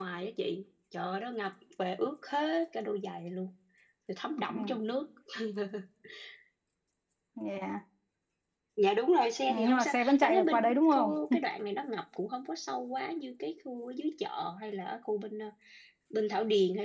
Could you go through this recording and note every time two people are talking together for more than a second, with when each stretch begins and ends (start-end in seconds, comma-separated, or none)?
9.5-11.2